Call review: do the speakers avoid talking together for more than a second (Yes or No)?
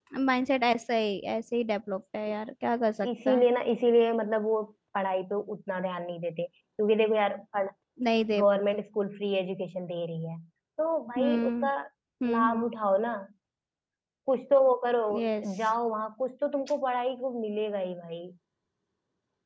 Yes